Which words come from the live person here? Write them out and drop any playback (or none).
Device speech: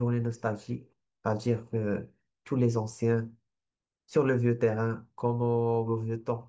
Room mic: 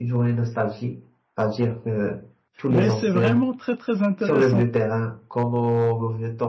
mais c'est vraiment très très intéressant.